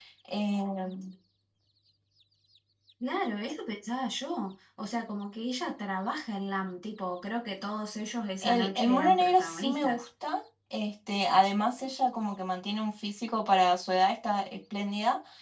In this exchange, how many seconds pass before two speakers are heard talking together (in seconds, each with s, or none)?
8.4 s